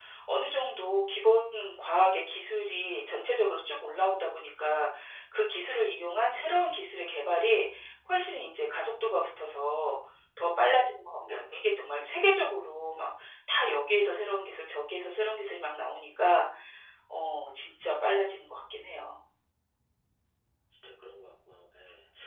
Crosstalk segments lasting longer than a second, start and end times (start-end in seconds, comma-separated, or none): none